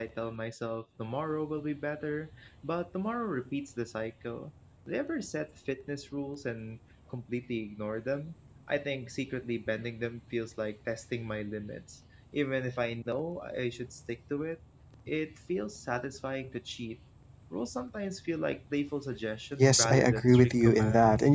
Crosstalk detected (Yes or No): Yes